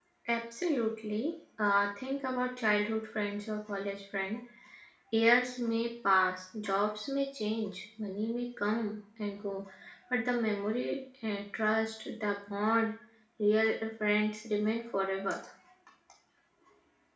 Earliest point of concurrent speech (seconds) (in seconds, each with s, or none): none